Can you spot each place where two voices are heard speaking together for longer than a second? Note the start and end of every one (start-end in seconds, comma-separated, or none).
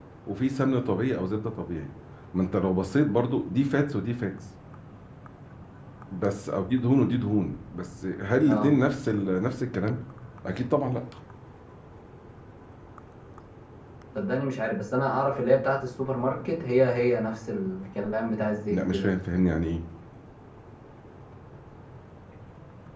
none